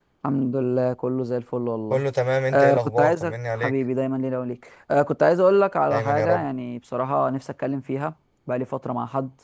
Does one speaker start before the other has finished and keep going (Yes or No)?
Yes